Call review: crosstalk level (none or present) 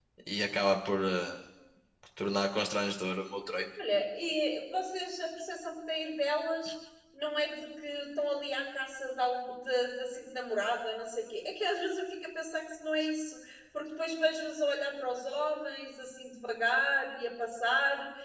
none